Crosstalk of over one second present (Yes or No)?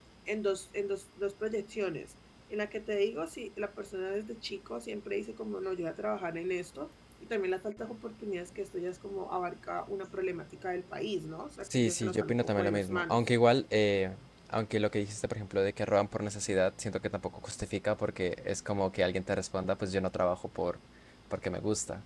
Yes